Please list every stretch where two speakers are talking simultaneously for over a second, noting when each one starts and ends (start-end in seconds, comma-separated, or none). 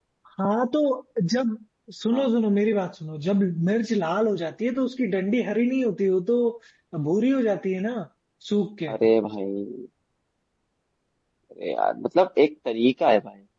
none